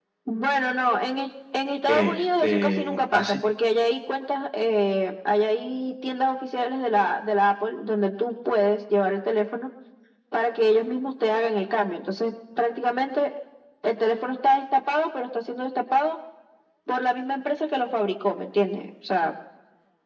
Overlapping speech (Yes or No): Yes